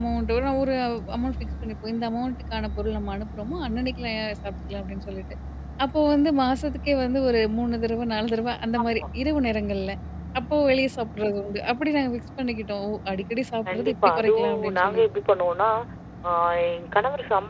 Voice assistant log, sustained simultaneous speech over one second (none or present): present